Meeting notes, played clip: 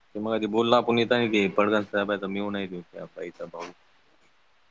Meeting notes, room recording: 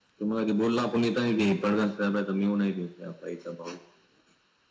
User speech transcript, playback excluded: none

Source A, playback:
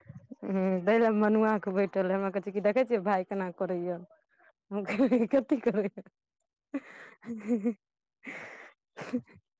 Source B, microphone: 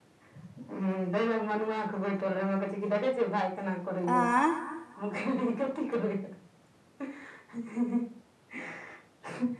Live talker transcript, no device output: आँय

